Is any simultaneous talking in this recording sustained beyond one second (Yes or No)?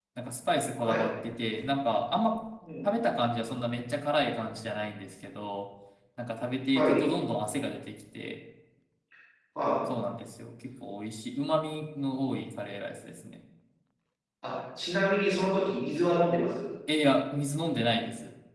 No